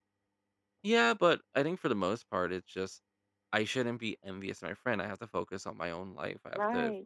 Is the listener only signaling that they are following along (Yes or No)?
No